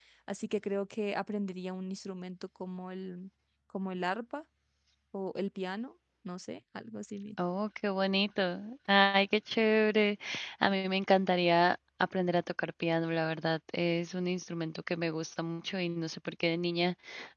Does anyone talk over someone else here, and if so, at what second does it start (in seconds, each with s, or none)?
none